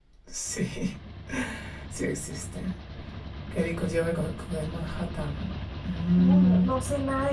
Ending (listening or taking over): taking over